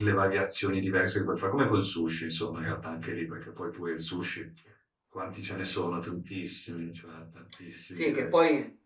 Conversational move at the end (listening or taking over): taking over